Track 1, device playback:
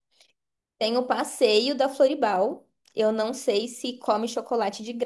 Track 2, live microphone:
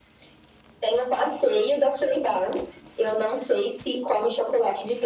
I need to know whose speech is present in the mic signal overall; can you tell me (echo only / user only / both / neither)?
echo only